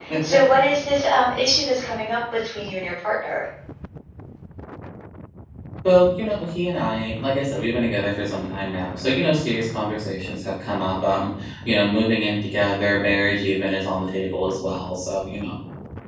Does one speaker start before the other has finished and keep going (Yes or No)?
No